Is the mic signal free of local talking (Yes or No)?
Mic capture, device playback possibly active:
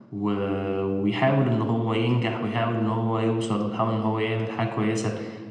Yes